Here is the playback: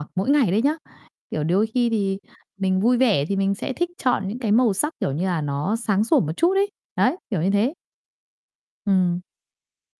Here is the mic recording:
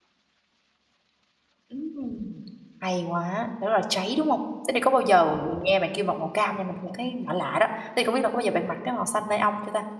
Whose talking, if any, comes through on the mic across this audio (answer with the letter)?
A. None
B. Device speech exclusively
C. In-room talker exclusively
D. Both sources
C